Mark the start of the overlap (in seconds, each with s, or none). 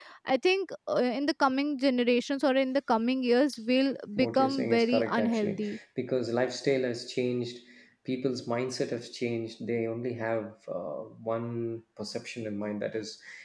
4.2 s